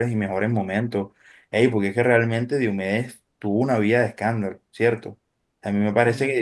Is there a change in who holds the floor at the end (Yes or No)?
No